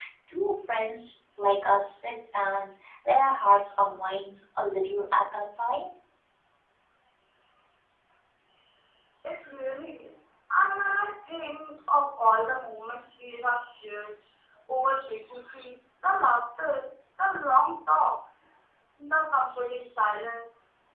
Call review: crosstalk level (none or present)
none